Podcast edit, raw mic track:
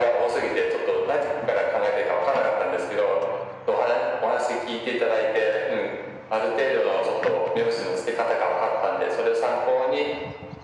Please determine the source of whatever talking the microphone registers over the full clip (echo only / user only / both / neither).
echo only